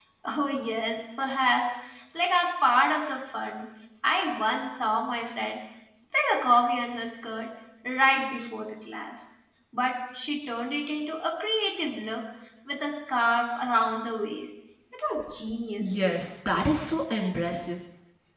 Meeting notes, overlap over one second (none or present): none